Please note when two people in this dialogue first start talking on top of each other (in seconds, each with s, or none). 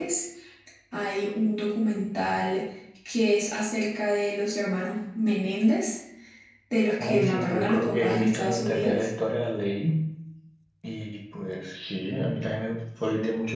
7.0 s